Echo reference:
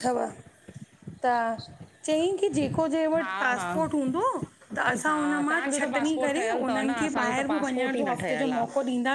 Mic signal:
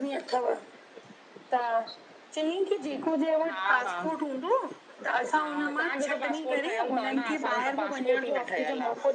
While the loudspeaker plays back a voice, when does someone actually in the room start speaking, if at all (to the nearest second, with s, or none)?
none